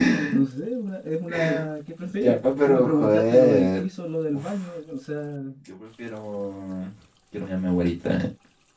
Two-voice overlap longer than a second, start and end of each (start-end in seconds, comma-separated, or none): 2.2-3.8